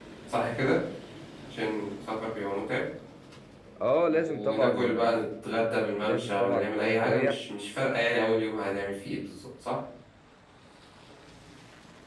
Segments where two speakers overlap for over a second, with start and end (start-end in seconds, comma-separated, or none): 4.1-5.3, 6.0-7.3